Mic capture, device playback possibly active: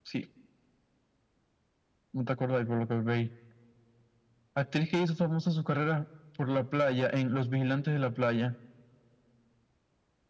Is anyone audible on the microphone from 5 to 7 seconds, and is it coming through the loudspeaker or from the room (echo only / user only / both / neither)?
echo only